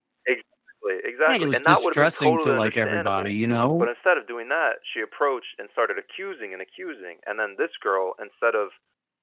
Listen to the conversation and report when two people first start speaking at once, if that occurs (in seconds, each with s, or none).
1.3 s